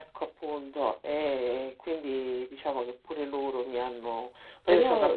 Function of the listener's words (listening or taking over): taking over